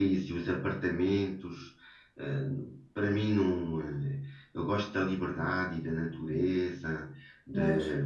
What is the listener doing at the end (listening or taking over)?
listening